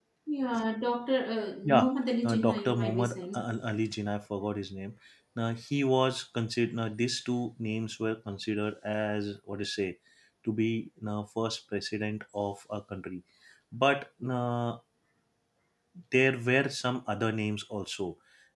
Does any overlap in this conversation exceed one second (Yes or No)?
Yes